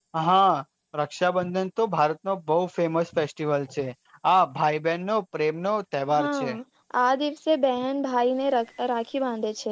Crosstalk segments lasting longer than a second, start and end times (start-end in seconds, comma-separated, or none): none